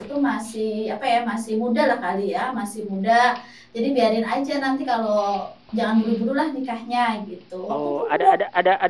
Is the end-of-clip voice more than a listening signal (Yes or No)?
Yes